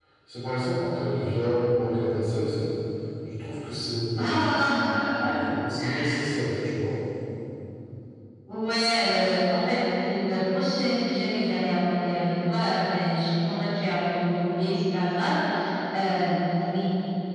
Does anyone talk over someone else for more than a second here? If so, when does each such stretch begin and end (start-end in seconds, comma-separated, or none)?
none